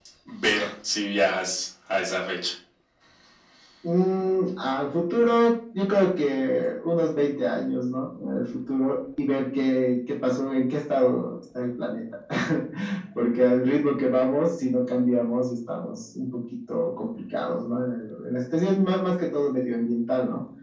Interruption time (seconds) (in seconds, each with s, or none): none